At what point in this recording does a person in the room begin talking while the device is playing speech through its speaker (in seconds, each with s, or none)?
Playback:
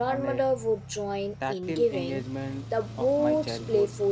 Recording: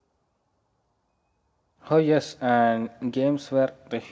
1.9 s